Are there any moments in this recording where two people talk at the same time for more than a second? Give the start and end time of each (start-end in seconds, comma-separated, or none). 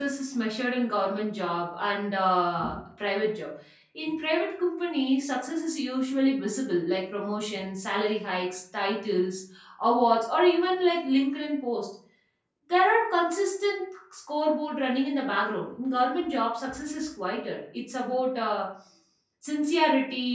none